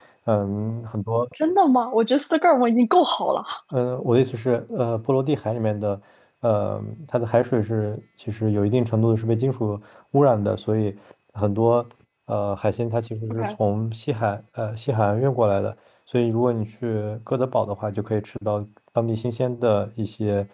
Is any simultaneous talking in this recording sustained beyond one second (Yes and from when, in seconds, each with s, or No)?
No